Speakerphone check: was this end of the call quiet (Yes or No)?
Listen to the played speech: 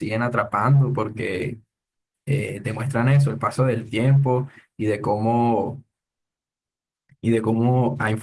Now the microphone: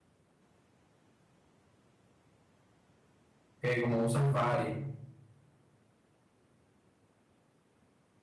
No